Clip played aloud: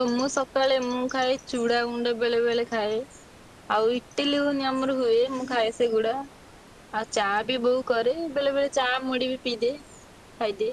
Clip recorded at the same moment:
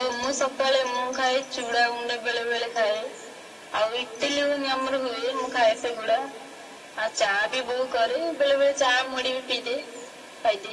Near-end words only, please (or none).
none